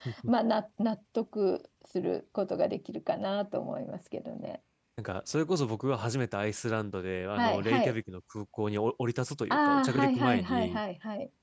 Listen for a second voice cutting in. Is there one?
Yes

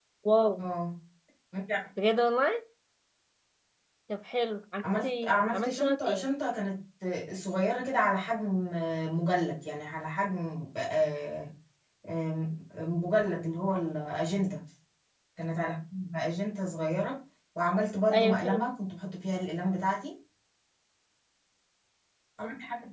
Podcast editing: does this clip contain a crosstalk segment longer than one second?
Yes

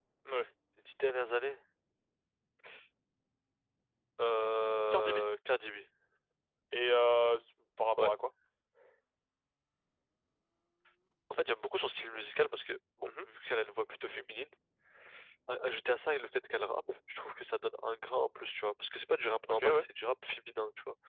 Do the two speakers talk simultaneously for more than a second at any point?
No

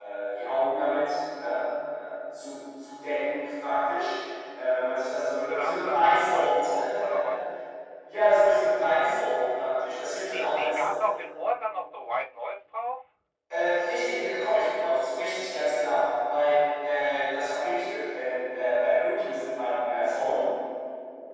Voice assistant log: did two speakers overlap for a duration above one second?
Yes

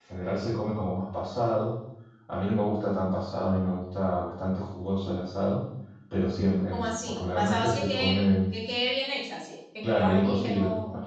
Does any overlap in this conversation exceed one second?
Yes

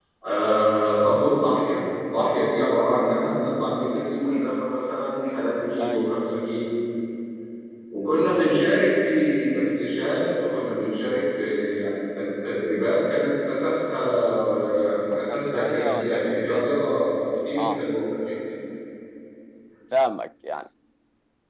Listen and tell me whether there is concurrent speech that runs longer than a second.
Yes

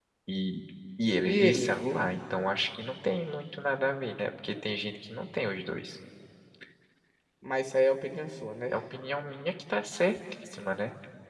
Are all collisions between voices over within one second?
Yes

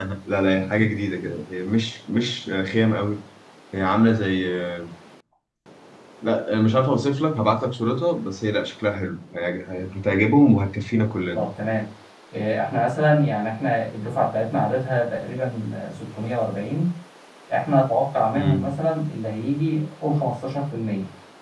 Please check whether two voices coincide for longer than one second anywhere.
No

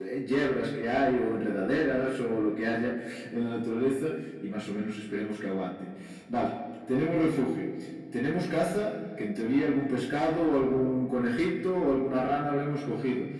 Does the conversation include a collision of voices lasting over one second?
No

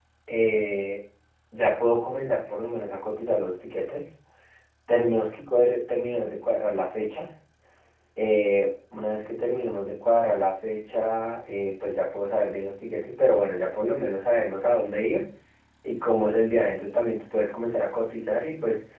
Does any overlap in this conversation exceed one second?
No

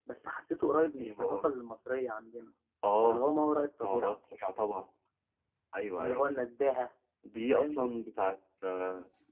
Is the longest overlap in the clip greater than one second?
No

